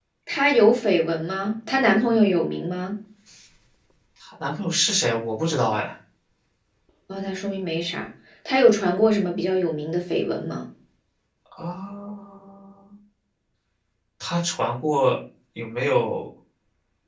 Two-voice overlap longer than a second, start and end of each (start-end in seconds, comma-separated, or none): none